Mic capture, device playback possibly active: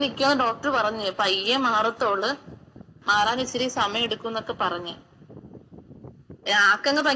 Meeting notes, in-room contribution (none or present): none